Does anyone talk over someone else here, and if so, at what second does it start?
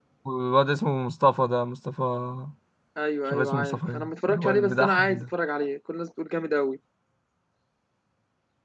3 s

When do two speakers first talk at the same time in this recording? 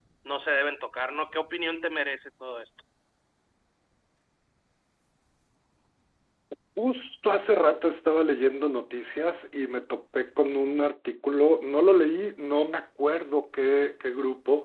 none

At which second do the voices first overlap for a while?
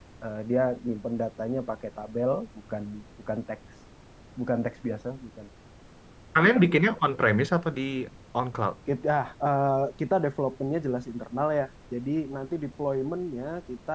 none

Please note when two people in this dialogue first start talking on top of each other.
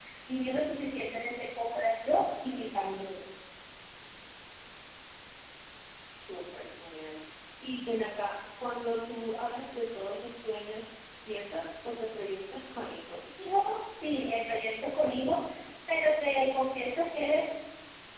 none

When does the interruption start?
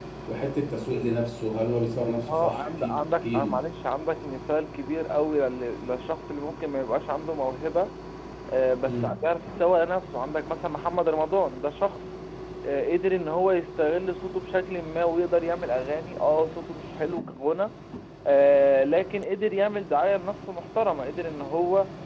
2 s

